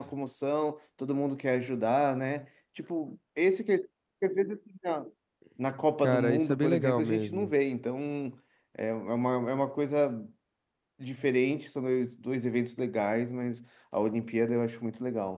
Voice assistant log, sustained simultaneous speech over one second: present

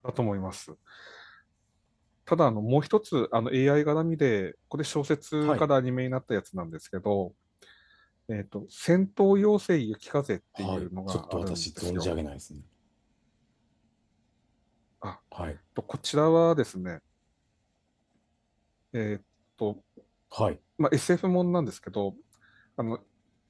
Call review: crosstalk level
present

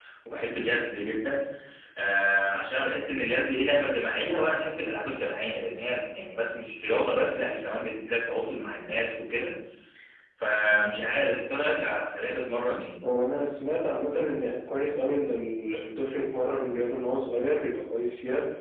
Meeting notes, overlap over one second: none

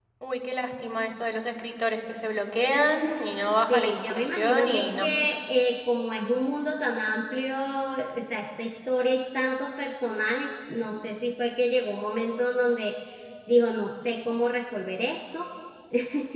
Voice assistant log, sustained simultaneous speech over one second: present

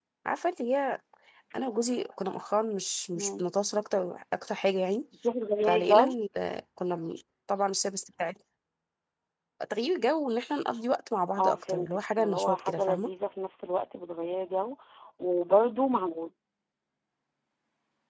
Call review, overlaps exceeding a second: present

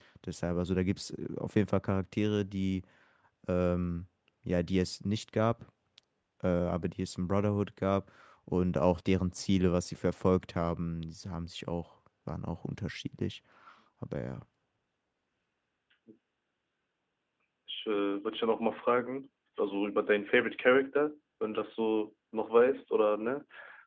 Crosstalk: none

